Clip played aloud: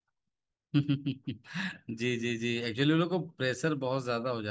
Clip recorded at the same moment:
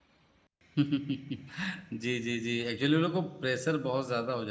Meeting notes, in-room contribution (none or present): none